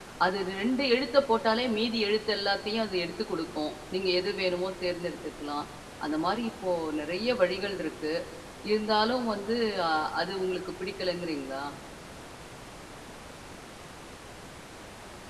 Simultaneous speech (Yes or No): No